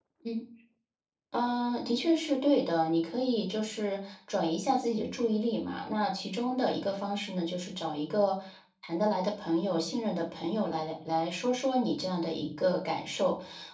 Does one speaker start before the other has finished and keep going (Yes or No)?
No